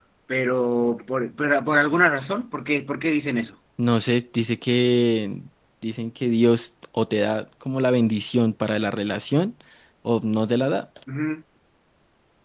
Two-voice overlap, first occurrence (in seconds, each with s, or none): none